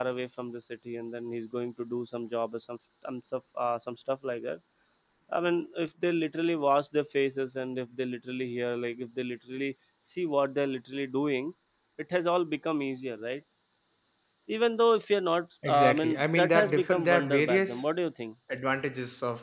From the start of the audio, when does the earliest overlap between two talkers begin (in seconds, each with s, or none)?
15.6 s